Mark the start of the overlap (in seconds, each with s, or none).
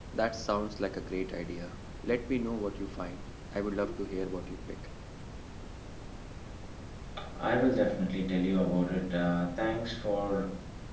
none